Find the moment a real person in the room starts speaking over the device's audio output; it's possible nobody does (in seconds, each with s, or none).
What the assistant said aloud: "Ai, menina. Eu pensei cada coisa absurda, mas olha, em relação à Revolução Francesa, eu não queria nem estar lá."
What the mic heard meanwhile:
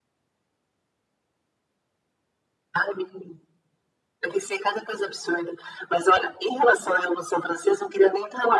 none